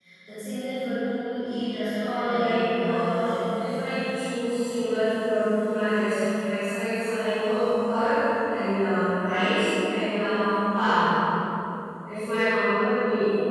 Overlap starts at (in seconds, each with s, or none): 2.0 s